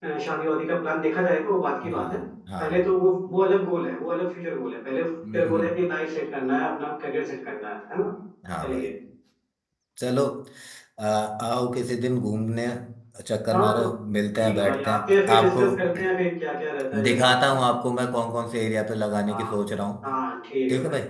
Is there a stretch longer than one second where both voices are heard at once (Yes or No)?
Yes